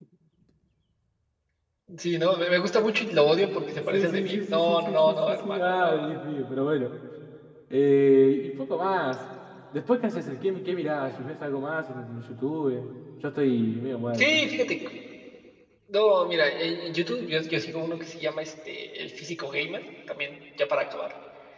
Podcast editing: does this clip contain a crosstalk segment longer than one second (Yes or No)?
Yes